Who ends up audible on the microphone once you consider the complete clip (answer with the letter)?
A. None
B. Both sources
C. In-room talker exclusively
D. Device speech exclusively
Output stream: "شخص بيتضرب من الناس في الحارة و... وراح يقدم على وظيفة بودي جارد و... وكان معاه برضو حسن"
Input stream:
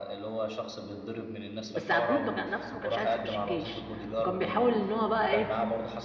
B